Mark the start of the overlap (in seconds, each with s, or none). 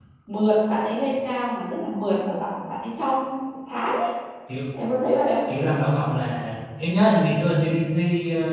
none